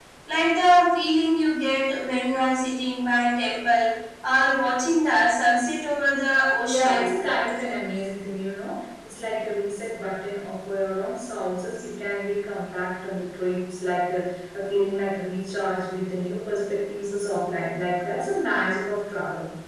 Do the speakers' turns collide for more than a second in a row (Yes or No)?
No